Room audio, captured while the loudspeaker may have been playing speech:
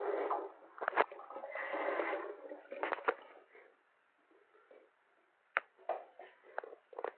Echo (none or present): none